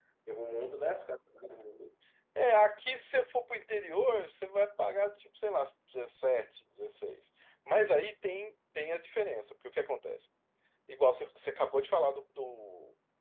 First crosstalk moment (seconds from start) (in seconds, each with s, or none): none